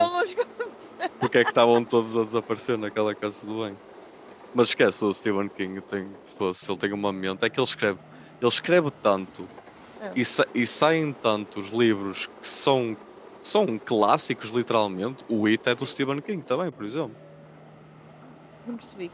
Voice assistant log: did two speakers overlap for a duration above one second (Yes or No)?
No